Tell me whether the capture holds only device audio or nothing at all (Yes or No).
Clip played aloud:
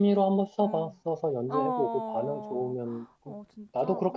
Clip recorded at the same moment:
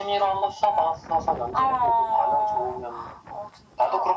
Yes